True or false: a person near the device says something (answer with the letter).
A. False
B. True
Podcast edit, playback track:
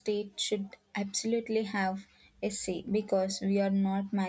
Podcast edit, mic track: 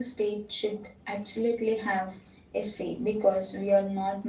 A